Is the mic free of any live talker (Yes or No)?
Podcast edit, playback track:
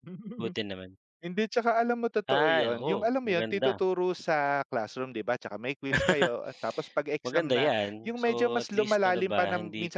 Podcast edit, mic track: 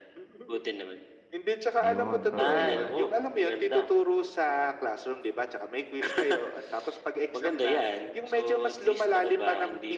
No